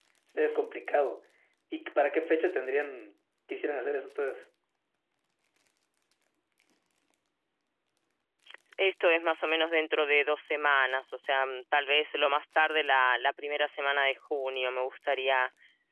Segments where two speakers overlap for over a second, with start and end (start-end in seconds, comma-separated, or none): none